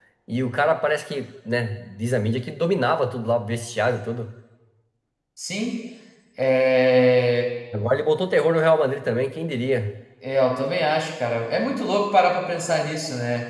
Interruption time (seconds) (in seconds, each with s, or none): none